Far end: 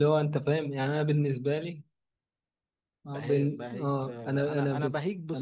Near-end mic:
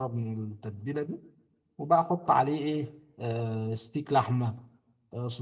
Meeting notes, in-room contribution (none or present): present